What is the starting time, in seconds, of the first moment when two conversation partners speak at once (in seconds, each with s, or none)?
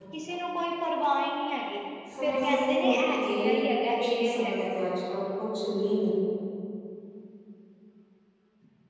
2.2 s